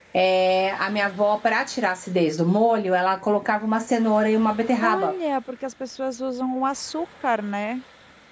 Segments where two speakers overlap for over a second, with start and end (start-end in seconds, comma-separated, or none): none